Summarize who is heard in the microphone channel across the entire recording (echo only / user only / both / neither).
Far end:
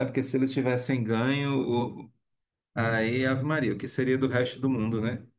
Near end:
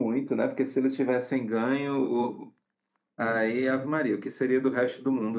echo only